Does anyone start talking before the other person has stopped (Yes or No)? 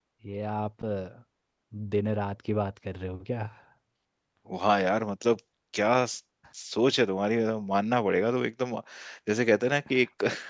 No